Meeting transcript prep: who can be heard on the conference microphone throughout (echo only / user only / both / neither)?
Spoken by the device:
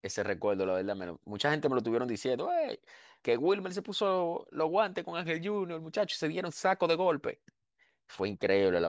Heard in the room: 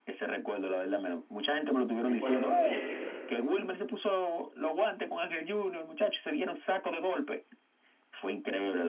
both